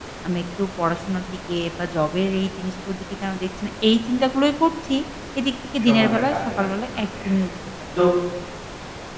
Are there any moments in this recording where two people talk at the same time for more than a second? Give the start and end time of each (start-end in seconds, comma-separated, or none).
5.8-7.3